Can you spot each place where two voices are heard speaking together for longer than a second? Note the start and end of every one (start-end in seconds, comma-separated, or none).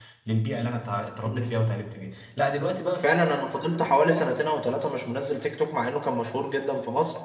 none